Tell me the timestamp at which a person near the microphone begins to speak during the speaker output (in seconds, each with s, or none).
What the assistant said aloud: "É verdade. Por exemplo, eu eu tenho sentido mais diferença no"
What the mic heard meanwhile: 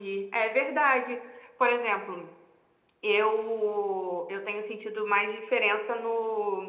none